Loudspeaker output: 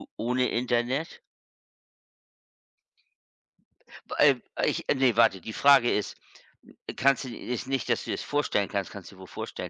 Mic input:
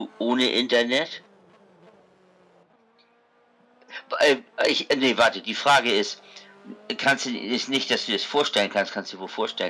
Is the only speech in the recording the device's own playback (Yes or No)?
Yes